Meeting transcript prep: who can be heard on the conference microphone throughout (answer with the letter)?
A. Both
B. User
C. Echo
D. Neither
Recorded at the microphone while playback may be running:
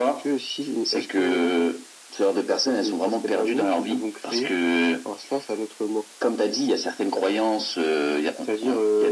C